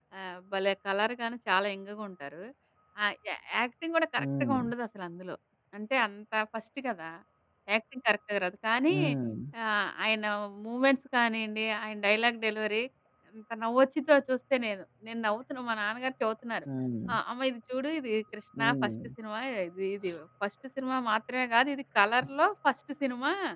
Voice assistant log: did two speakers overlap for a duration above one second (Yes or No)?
No